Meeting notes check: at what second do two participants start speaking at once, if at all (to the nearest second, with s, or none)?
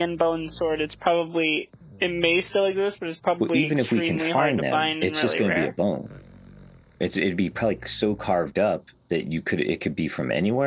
3 s